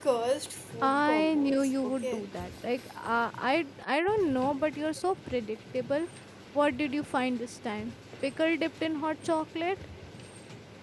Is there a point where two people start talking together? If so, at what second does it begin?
1 s

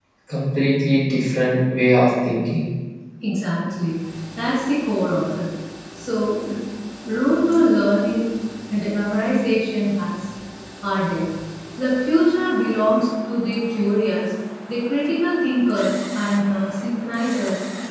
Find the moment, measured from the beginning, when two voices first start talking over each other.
none

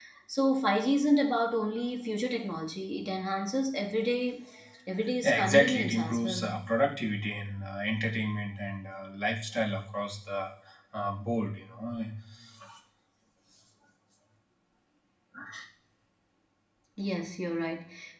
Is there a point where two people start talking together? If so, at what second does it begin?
5 s

